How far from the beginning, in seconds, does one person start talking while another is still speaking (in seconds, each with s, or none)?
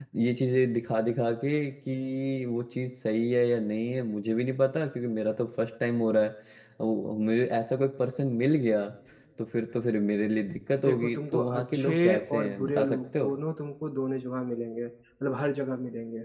10.8 s